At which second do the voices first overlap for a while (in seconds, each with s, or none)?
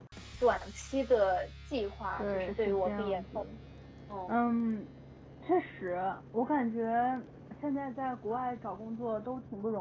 2.2 s